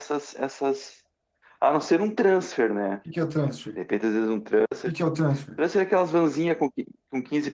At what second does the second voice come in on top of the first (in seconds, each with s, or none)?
none